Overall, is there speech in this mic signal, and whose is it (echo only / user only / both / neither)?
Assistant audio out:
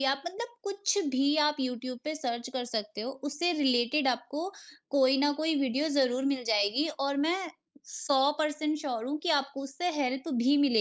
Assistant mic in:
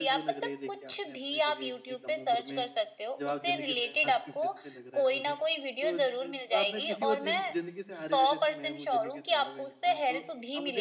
both